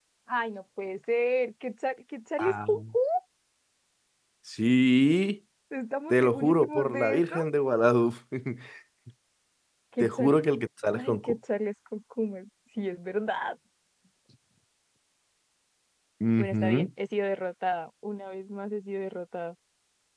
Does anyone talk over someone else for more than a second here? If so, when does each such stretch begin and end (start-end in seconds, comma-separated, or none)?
6.1-7.4